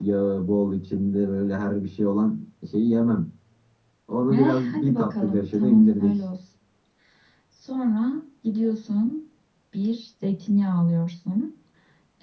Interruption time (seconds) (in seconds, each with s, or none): 4.3 s